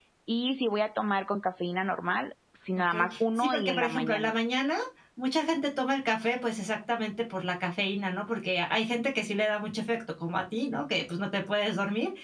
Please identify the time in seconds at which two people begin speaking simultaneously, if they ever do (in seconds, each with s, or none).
2.8 s